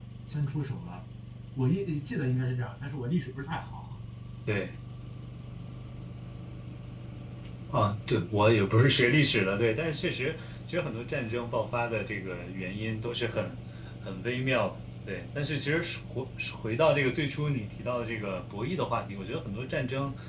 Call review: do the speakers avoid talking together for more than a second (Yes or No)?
Yes